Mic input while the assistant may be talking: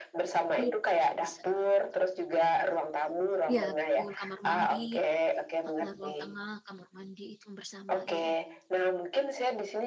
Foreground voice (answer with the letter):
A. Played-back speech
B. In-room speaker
A